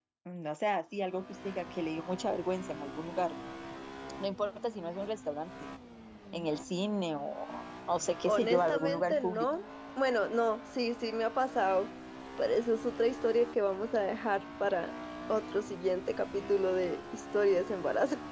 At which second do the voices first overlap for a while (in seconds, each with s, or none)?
8.2 s